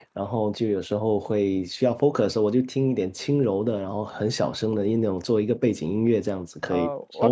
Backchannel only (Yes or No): No